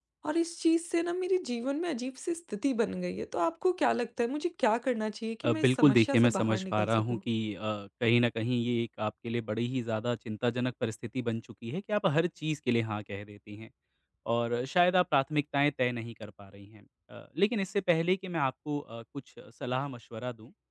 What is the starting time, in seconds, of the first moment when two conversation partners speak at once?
5.4 s

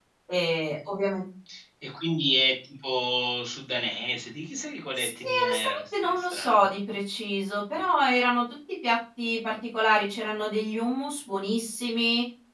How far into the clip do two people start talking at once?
5.0 s

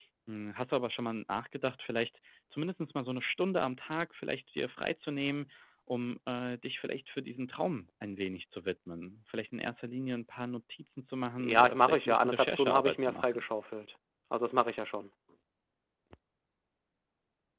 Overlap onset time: 11.4 s

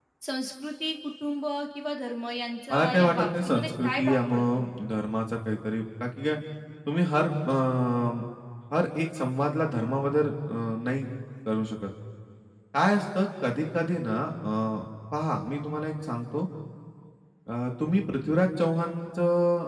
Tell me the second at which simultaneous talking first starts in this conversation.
2.7 s

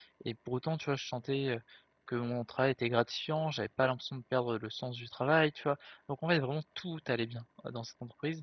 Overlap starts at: none

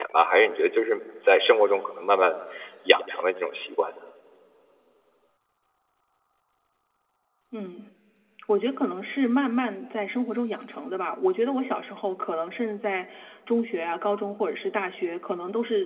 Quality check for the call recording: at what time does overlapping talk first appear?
none

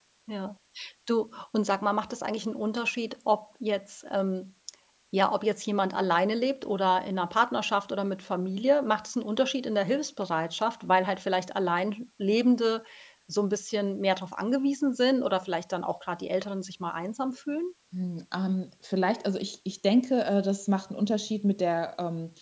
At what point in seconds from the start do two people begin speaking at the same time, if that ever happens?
none

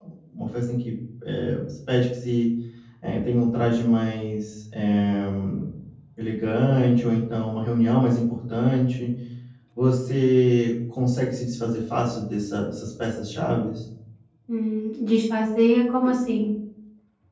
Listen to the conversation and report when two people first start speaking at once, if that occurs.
none

